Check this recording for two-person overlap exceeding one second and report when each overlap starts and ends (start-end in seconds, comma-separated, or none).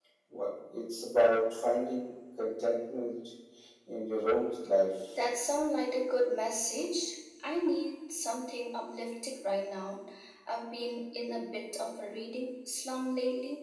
none